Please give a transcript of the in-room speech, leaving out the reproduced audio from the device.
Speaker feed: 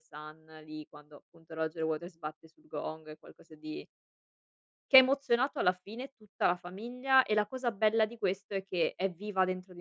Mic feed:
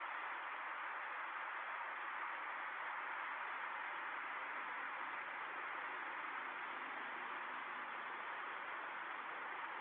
none

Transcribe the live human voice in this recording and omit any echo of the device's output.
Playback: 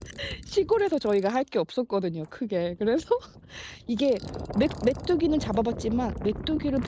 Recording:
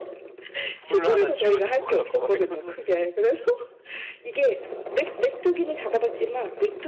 불 1 쥐여 주고 가고 막 이러면은

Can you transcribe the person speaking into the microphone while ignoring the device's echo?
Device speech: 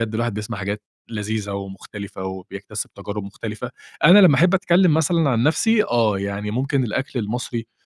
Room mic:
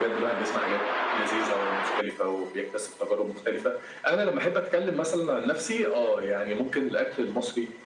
none

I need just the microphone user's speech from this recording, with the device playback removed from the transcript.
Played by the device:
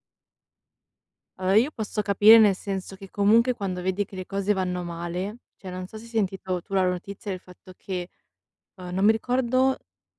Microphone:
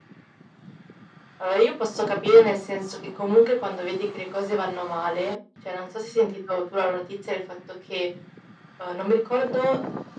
none

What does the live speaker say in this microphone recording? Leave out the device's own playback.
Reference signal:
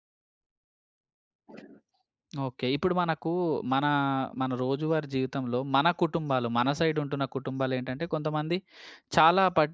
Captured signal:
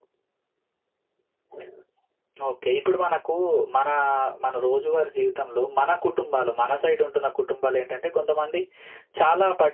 none

